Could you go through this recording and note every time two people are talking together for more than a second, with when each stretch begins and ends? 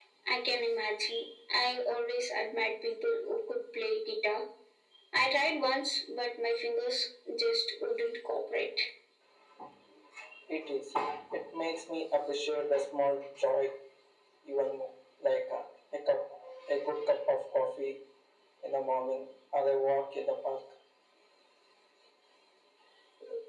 none

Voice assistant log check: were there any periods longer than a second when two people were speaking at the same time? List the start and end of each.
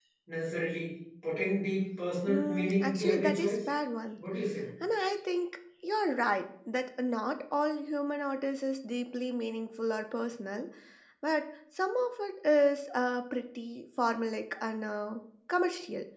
2.3-3.6

